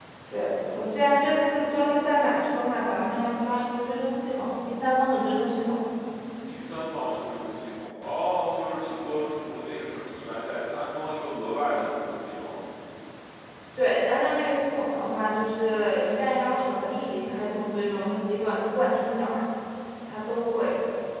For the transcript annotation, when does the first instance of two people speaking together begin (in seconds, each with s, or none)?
none